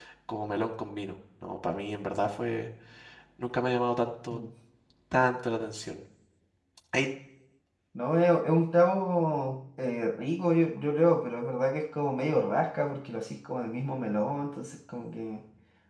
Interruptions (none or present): none